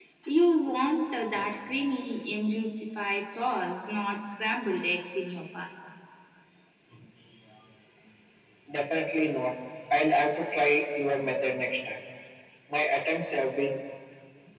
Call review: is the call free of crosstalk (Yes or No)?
Yes